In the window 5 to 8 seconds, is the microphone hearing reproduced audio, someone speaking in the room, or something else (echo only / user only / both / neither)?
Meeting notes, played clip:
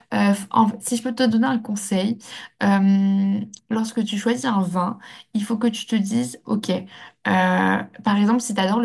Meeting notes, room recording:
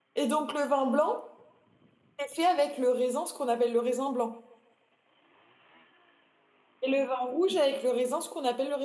user only